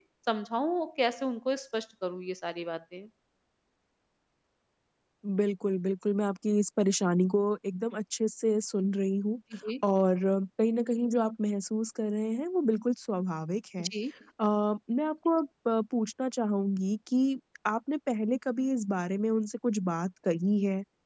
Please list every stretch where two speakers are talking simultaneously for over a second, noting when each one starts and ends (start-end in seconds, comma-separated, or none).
none